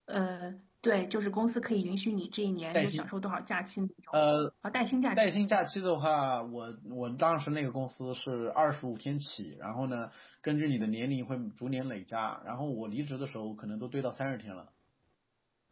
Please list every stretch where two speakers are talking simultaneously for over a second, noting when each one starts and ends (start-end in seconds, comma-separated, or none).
none